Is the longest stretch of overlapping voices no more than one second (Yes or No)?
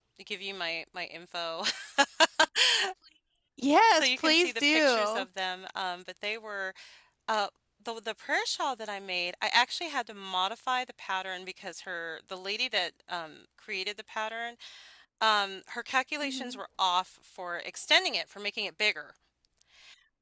No